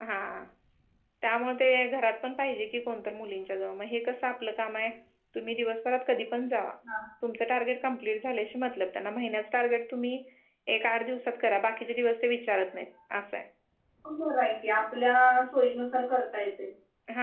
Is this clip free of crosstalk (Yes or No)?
Yes